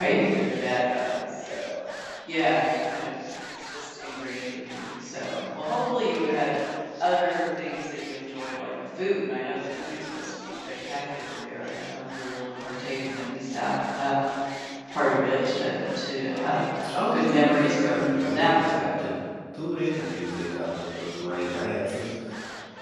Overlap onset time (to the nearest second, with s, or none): 17 s